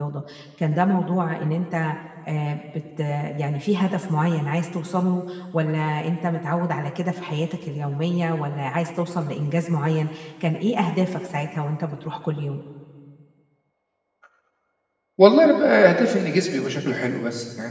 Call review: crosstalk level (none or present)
none